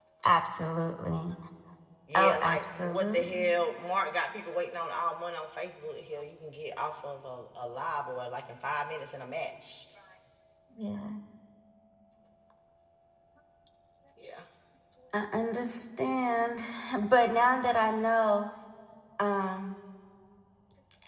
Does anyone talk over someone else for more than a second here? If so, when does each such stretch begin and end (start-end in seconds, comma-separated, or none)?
2.1-3.5